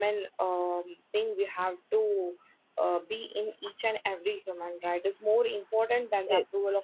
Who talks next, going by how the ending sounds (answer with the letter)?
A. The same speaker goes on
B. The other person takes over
A